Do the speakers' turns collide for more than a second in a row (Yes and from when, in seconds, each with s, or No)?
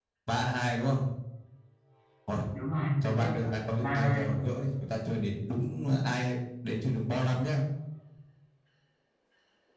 Yes, from 3.0 s